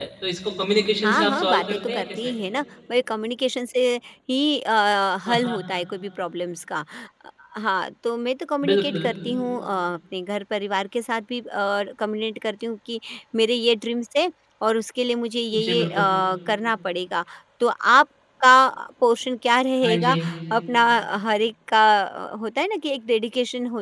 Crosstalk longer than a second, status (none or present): present